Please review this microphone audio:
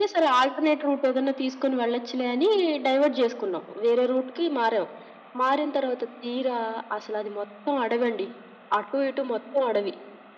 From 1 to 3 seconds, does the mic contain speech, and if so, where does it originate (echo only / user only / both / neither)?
echo only